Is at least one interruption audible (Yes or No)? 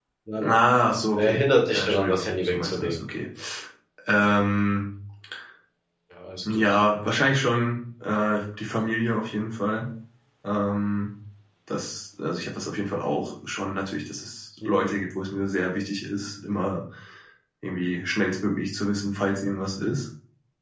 Yes